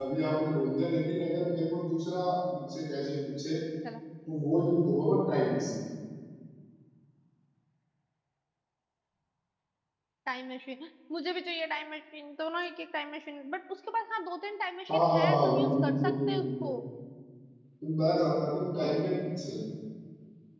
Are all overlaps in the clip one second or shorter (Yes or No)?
No